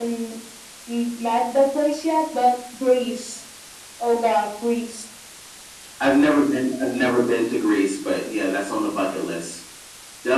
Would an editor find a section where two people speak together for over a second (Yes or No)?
No